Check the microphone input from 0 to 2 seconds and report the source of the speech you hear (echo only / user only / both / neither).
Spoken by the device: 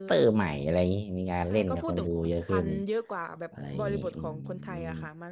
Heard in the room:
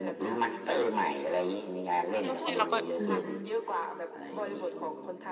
echo only